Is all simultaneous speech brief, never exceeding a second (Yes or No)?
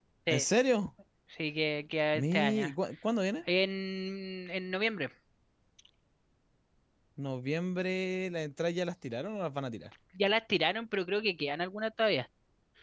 Yes